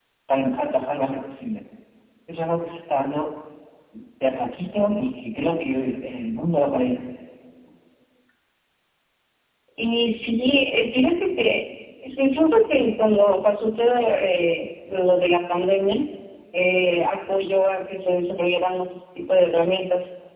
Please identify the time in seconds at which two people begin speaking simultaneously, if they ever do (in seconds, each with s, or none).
none